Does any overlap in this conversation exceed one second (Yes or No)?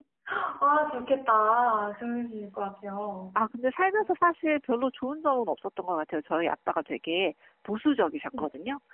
No